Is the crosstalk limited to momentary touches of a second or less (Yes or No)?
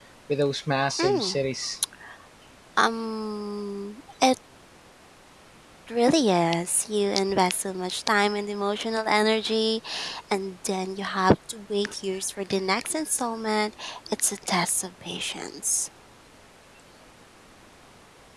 Yes